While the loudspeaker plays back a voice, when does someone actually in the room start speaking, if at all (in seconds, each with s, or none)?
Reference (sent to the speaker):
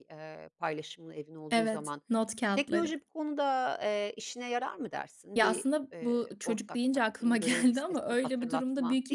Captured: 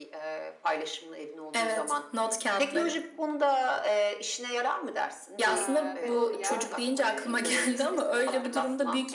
5.5 s